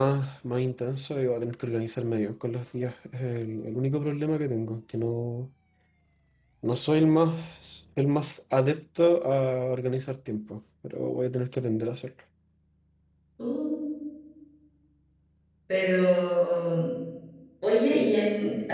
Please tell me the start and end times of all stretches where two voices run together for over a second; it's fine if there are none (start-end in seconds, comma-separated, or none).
none